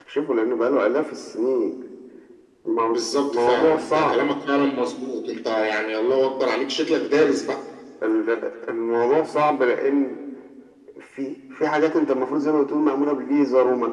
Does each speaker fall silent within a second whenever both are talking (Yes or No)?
No